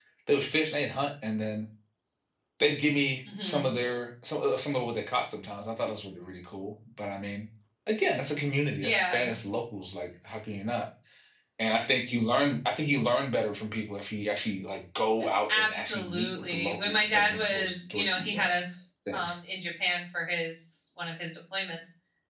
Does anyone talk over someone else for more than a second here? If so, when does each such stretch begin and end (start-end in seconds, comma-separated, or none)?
15.5-18.5